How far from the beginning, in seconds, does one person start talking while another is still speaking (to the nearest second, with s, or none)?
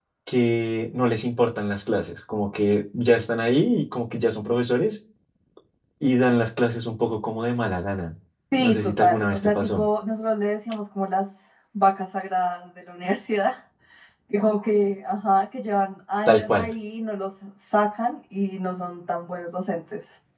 9 s